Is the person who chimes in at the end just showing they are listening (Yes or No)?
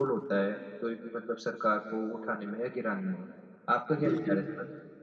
No